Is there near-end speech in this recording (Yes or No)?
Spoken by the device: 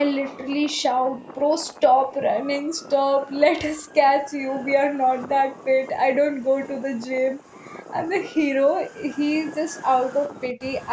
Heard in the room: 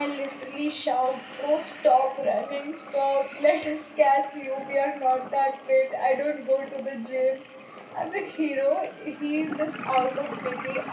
No